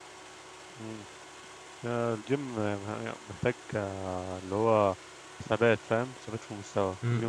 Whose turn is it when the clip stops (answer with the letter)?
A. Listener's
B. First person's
A